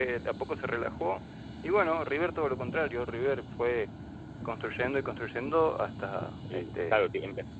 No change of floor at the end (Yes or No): No